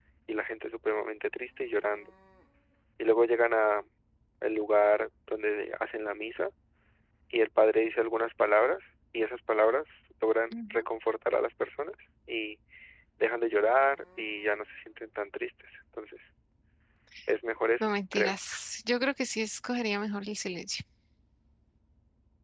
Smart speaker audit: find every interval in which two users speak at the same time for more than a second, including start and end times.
none

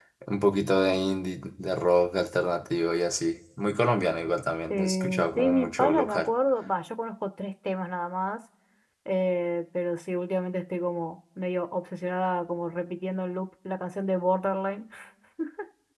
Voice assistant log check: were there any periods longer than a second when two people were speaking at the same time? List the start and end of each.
4.7-6.3

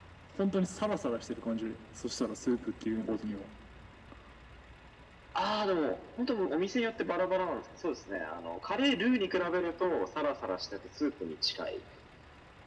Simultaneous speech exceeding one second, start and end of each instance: none

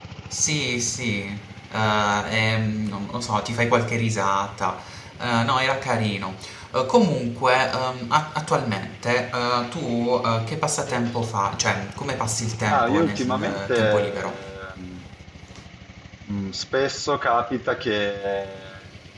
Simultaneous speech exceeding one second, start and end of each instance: 12.7-14.4

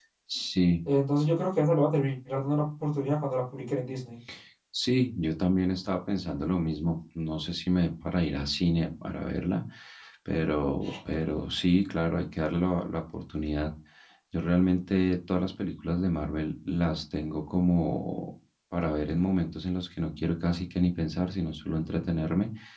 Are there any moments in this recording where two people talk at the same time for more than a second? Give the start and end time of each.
none

